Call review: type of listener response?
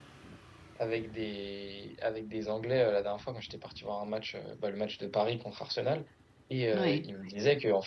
listening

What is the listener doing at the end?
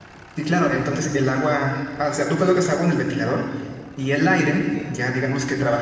listening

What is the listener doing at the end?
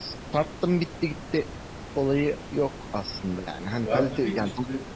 taking over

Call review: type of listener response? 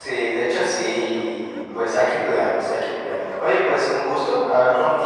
listening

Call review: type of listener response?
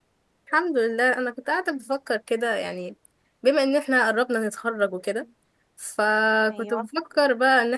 listening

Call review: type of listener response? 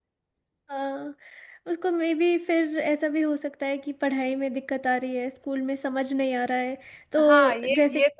taking over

